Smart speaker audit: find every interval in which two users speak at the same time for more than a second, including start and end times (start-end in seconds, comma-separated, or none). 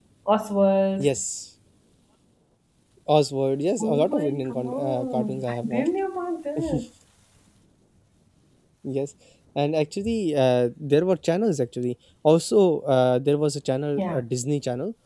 3.8-5.9